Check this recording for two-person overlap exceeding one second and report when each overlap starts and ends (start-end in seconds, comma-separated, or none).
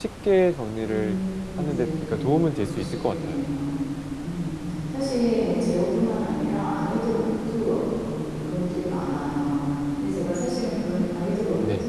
1.7-3.4